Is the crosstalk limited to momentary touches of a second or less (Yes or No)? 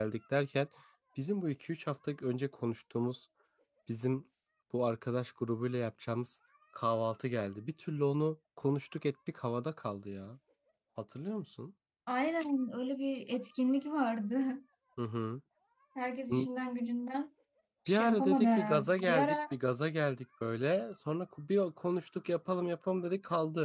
No